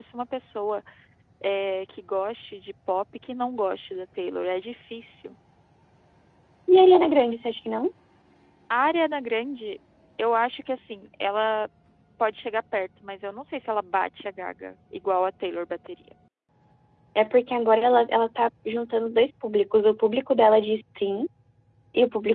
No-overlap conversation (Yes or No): Yes